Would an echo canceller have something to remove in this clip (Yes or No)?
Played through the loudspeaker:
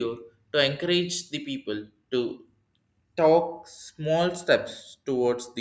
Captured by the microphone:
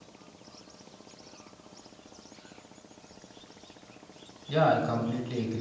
No